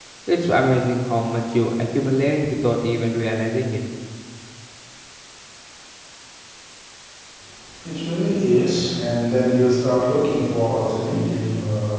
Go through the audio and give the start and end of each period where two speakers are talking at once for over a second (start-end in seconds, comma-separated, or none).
none